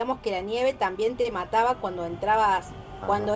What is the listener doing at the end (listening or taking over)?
listening